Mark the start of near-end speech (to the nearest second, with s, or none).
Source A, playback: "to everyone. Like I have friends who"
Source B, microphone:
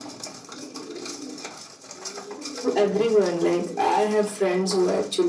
none